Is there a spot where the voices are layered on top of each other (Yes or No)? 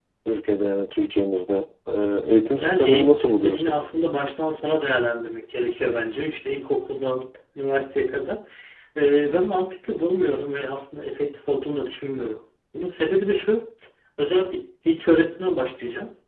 Yes